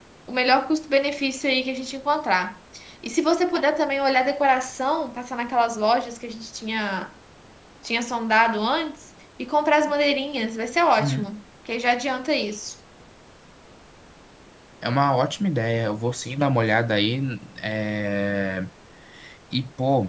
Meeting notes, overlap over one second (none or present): none